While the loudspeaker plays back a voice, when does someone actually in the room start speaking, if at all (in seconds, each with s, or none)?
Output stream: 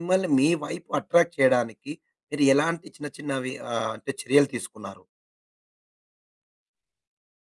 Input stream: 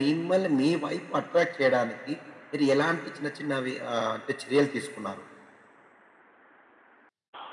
none